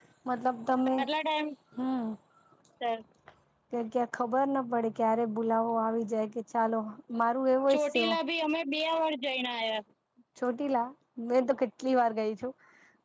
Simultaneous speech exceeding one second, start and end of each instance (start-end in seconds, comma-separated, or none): none